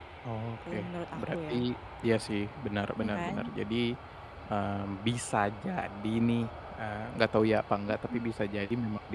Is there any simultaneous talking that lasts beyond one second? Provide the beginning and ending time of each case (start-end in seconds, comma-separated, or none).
none